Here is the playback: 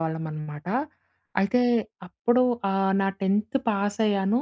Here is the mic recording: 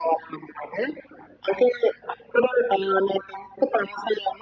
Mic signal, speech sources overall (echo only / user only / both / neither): echo only